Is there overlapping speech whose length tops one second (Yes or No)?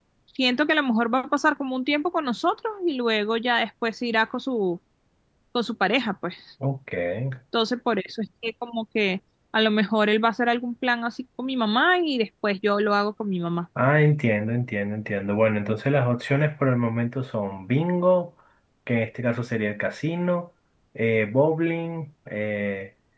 No